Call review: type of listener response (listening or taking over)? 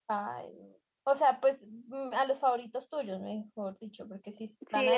taking over